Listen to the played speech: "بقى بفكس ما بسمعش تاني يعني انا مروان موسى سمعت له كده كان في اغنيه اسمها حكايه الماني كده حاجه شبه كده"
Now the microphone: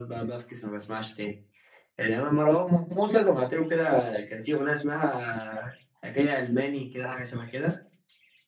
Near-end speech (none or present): none